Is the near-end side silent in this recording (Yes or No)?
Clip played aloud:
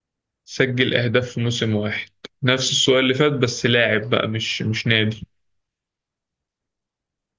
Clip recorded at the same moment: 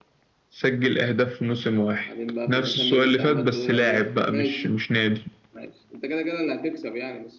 No